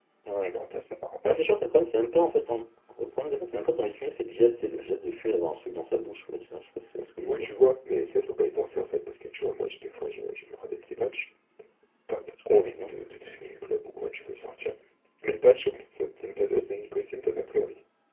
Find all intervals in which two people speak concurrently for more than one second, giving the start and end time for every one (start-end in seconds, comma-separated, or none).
none